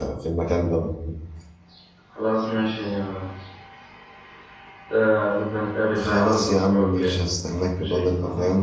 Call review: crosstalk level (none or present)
present